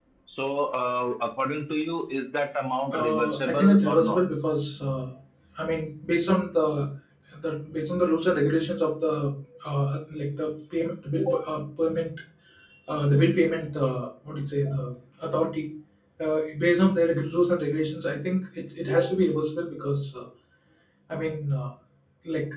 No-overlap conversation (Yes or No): No